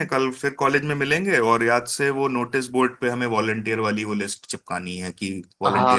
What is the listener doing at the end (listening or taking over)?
taking over